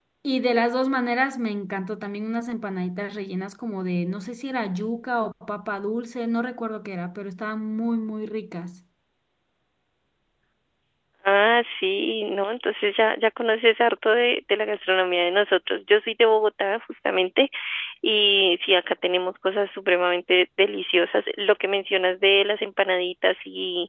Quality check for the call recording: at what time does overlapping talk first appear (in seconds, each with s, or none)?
none